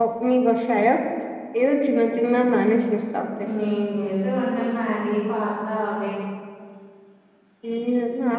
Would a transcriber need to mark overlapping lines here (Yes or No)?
No